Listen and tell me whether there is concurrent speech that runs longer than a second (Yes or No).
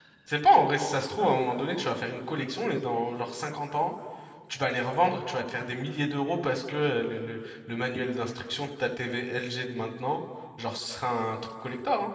No